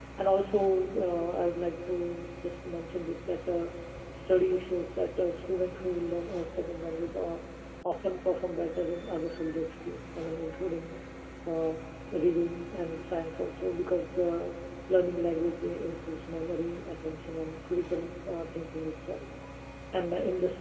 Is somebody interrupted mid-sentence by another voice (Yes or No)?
No